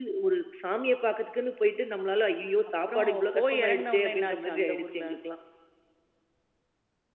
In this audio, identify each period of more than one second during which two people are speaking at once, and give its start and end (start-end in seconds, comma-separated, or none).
2.9-5.1